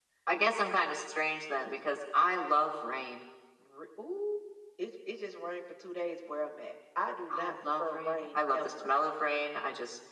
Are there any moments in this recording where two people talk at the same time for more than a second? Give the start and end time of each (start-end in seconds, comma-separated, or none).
7.3-8.9